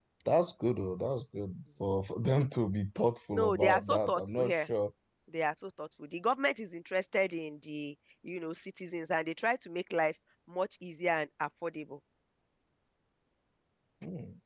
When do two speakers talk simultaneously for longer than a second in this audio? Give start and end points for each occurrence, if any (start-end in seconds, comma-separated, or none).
3.3-4.6